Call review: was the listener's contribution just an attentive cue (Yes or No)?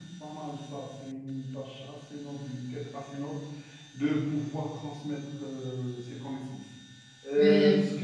Yes